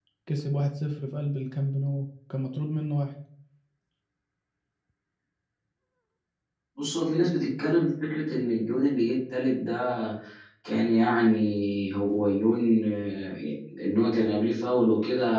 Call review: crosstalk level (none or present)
none